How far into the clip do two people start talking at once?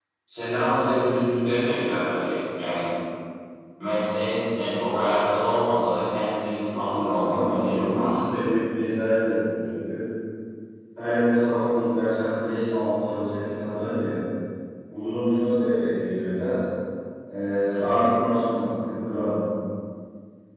7 s

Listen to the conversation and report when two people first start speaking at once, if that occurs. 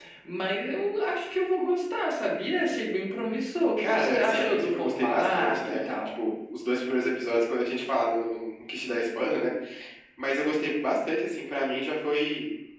4 s

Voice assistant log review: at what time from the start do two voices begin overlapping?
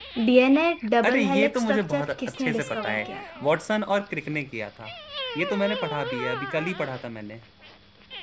1 s

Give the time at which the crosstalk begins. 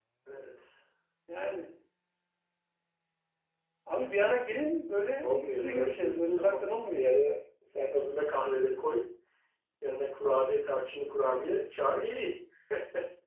5 s

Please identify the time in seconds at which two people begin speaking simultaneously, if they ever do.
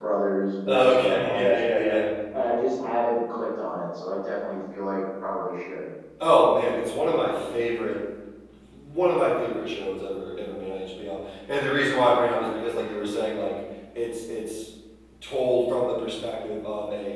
1 s

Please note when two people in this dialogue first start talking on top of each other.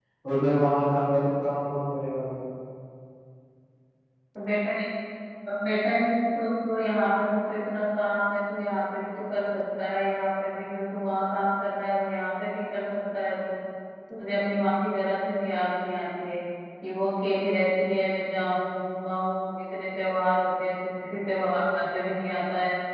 none

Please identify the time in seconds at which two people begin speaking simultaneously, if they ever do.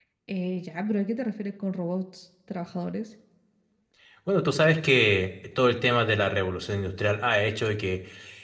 none

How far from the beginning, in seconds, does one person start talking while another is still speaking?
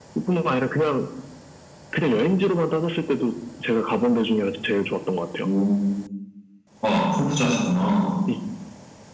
none

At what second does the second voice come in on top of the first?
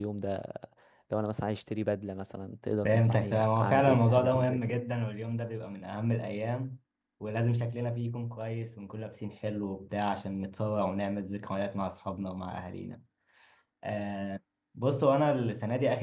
3 s

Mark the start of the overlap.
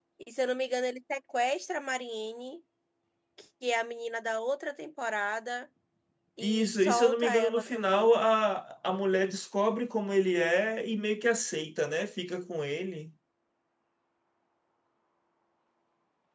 6 s

